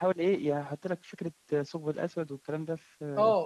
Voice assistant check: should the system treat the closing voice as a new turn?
Yes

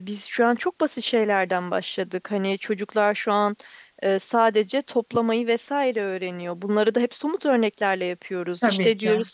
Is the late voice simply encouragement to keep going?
Yes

